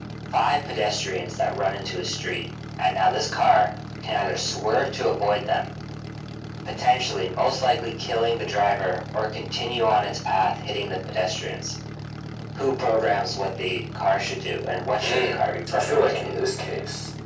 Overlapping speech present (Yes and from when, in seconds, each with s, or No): Yes, from 15.0 s